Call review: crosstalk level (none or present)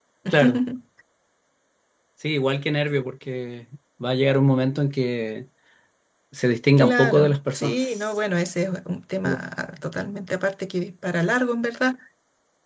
present